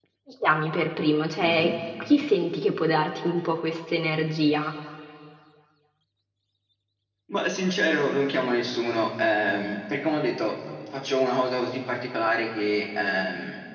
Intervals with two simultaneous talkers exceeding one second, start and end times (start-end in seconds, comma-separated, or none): none